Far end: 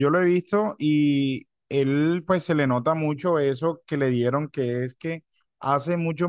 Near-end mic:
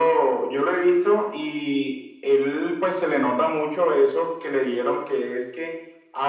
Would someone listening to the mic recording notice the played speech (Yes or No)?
Yes